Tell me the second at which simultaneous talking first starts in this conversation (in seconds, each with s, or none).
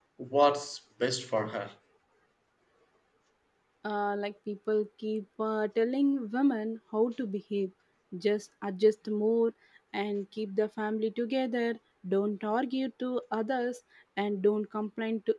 none